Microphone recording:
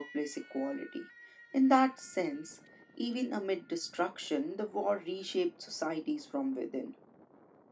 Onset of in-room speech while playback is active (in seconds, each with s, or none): none